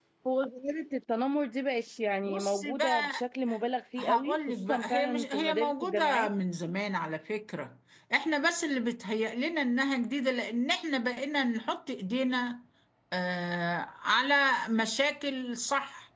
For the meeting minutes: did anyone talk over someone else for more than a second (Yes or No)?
Yes